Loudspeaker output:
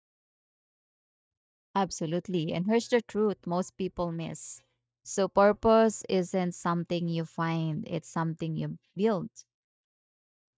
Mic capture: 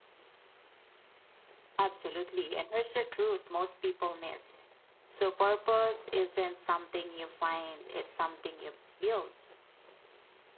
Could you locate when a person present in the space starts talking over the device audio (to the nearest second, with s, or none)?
none